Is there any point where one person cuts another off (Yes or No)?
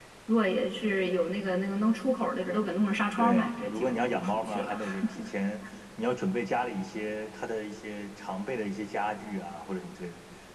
Yes